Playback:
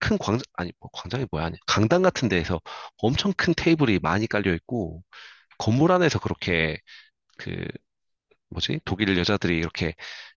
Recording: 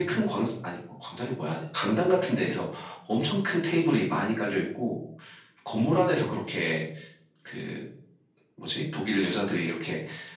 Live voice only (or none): none